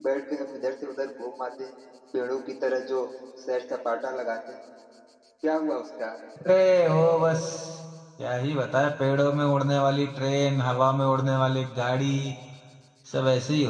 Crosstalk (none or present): none